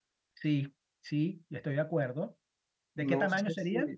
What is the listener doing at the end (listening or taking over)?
taking over